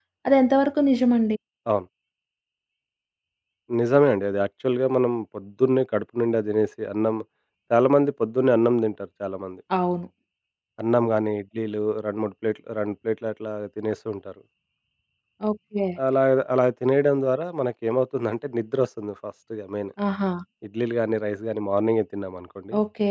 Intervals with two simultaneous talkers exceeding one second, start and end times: none

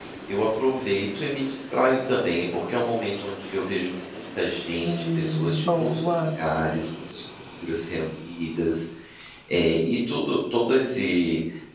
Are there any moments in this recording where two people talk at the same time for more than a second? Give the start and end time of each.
4.8-6.1

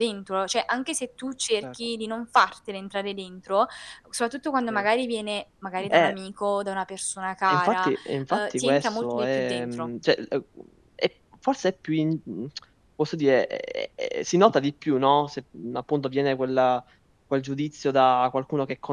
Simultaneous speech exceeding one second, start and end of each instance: 8.3-9.9

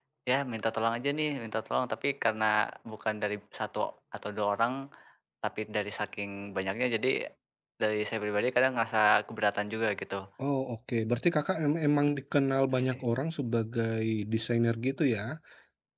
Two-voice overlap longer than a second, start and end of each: none

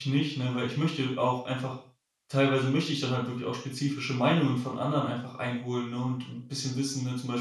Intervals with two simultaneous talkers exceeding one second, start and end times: none

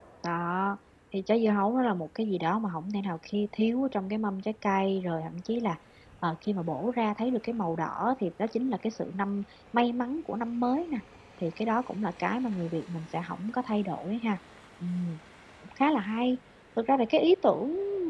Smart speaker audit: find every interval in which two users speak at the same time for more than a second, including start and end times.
none

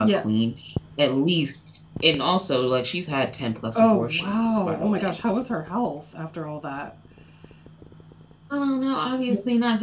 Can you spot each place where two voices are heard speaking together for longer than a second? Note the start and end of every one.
3.7-5.1

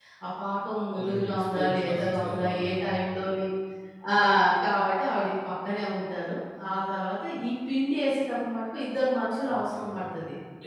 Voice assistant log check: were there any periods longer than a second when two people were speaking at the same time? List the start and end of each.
0.9-2.7

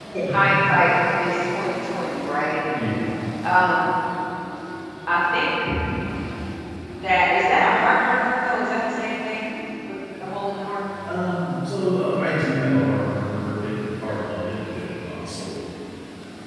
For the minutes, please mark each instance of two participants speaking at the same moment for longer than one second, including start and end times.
none

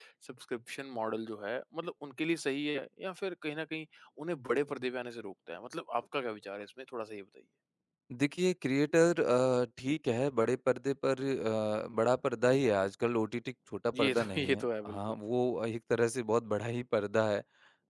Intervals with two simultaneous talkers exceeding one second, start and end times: 13.9-15.1

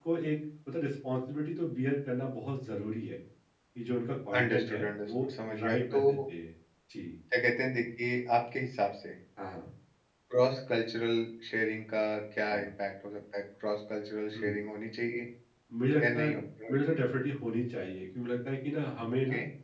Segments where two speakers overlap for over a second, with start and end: 4.4-6.0

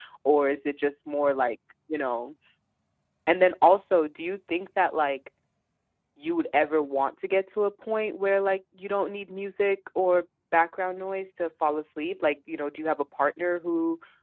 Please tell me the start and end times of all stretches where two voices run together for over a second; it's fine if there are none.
none

